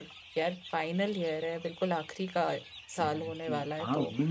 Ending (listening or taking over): taking over